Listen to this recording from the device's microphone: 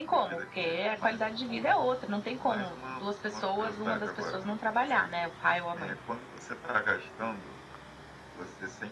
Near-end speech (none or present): none